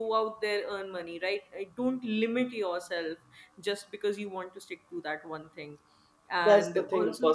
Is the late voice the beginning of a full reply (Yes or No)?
Yes